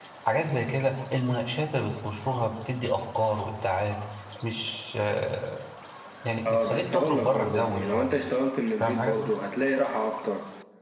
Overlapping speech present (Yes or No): Yes